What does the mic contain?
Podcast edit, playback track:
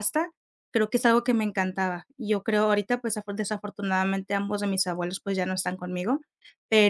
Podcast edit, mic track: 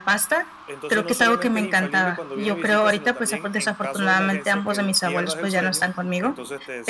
both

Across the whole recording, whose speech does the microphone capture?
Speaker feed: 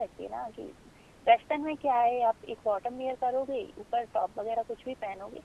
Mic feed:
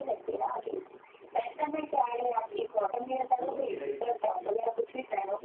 both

